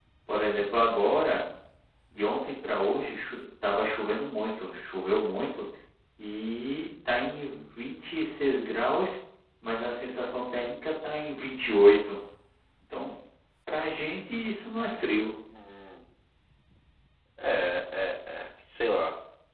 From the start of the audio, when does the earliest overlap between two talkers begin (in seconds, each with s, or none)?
none